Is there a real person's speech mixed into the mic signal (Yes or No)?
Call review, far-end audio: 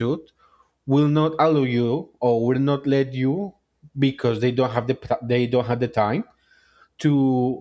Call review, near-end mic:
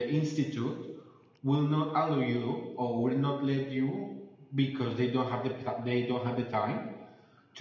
No